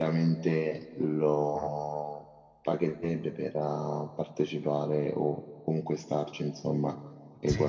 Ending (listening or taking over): taking over